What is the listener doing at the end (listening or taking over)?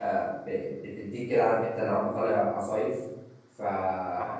listening